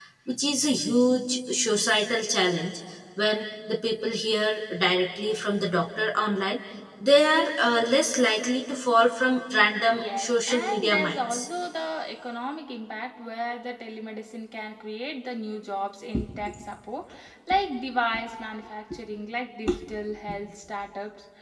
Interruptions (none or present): present